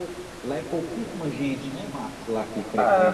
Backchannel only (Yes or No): No